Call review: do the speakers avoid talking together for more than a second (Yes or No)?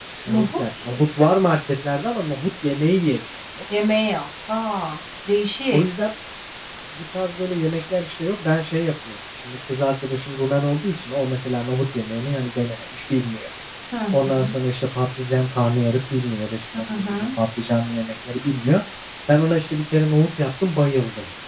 Yes